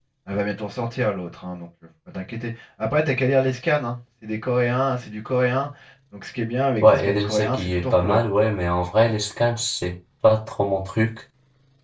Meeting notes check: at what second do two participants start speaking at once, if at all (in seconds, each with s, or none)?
6.8 s